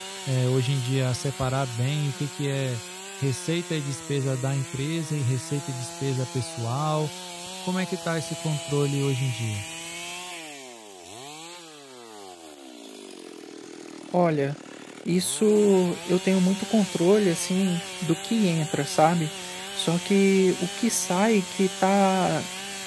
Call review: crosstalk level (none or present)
none